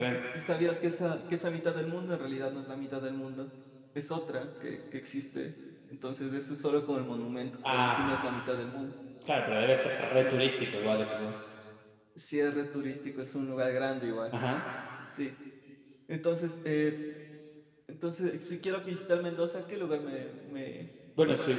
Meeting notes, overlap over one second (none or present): none